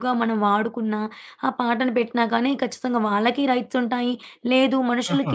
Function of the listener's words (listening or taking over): listening